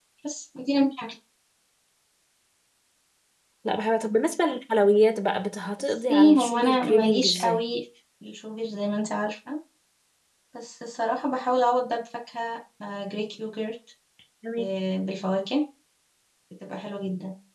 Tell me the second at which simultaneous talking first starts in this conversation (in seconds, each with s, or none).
6.1 s